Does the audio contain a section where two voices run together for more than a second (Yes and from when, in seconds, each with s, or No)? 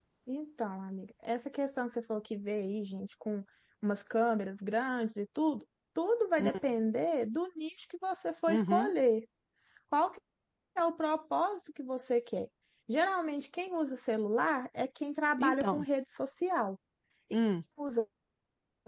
No